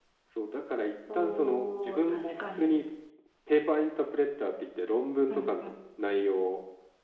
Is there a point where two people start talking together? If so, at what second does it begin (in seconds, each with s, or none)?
1.1 s